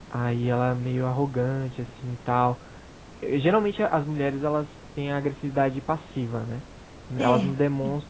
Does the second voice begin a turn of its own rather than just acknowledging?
No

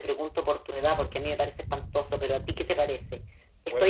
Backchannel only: Yes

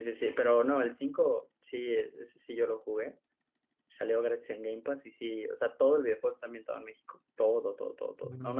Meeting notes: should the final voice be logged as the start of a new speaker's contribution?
No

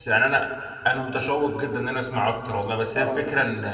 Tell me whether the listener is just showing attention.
Yes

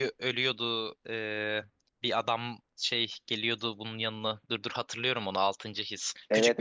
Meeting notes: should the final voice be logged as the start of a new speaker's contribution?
No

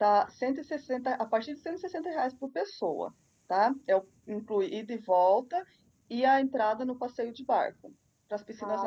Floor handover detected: Yes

